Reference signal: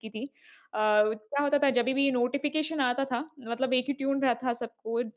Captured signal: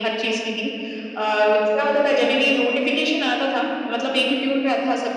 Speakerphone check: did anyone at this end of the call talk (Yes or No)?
No